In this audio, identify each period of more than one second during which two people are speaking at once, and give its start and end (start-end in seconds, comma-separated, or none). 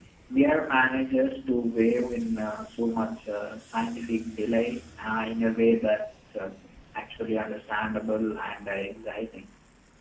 none